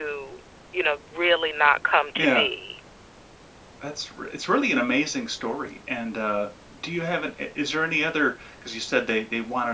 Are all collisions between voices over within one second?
Yes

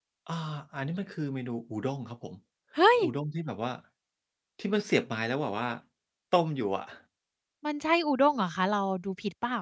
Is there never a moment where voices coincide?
Yes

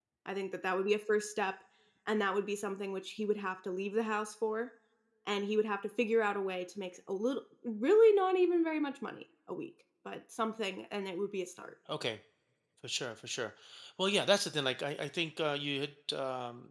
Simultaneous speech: No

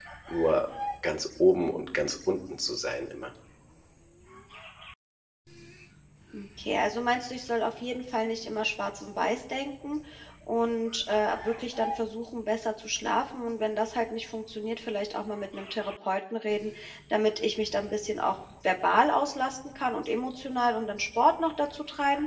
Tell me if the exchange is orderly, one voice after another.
Yes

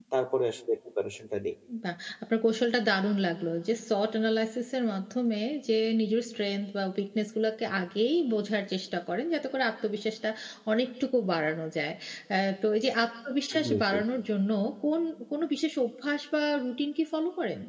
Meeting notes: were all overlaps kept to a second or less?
Yes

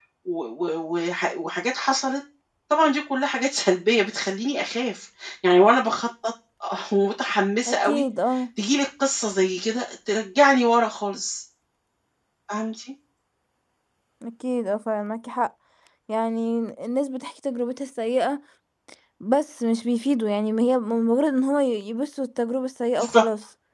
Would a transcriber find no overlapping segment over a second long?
Yes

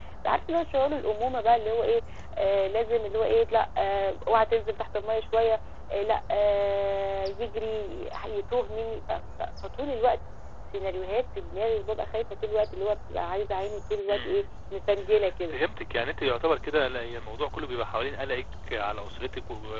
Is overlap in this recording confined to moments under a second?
Yes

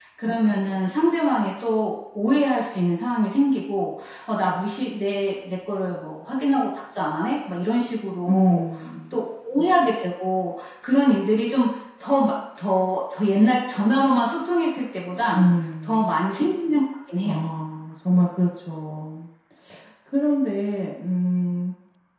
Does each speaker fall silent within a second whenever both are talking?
Yes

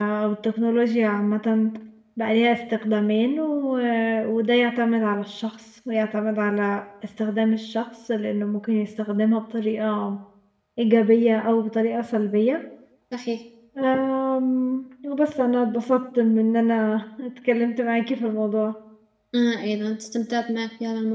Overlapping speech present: No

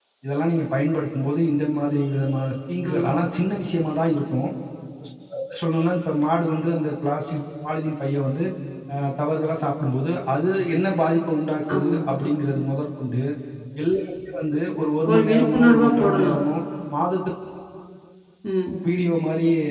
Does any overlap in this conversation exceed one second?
Yes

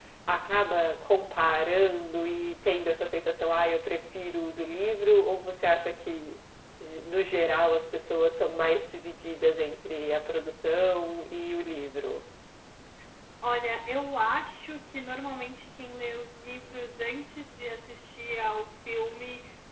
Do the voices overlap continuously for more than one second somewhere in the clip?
No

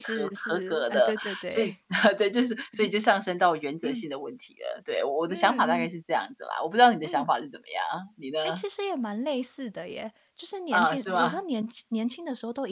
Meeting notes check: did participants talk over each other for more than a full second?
Yes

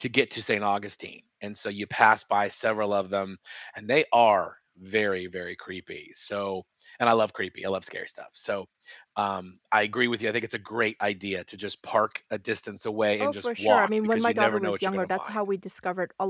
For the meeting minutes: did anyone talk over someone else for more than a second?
Yes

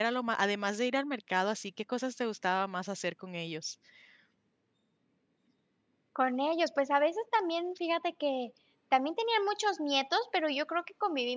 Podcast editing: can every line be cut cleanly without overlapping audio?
Yes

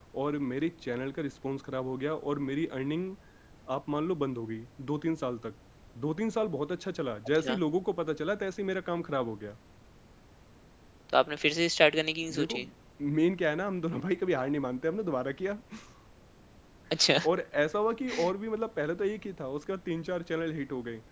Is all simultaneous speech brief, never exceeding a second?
Yes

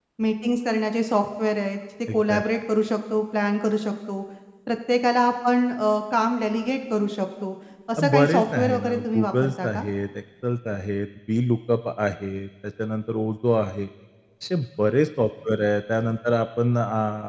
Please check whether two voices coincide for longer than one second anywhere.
Yes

